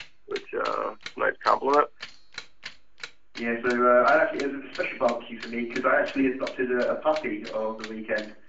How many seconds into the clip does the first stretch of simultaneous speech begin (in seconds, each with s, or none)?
none